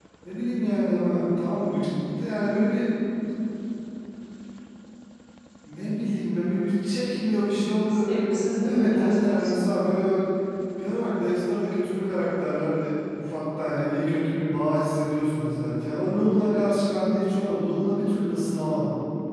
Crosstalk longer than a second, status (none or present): present